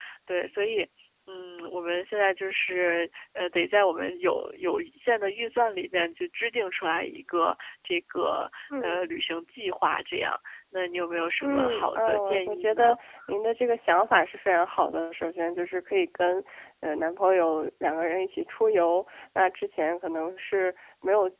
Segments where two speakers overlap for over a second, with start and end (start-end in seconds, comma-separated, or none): 11.4-12.9